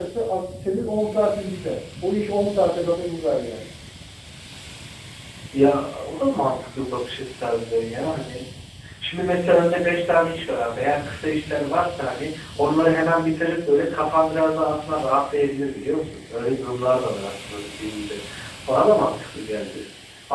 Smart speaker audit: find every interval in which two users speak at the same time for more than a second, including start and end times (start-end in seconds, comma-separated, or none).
none